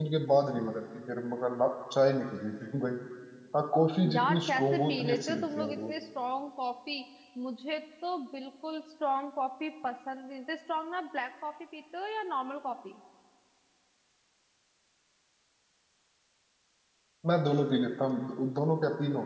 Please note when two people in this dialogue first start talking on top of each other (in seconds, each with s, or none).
4.1 s